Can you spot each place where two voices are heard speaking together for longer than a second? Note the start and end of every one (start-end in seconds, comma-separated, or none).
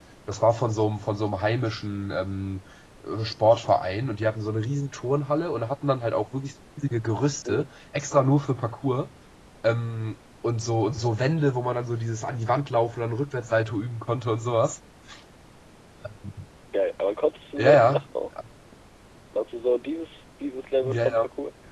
none